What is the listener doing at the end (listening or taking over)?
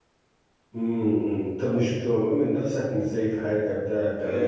taking over